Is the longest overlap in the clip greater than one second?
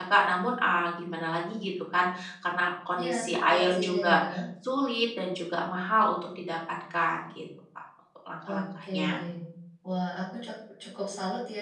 Yes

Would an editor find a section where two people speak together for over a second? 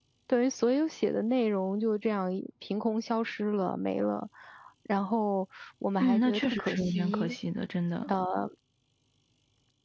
Yes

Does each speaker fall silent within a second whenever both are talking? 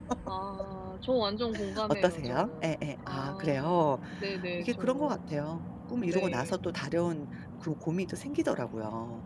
No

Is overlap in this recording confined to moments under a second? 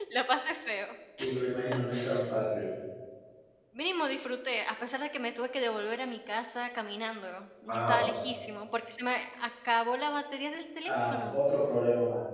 Yes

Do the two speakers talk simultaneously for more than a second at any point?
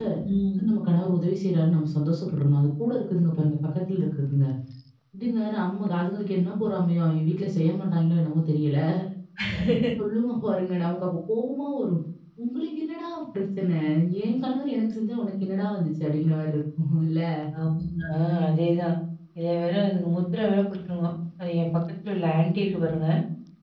No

